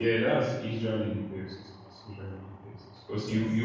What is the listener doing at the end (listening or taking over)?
listening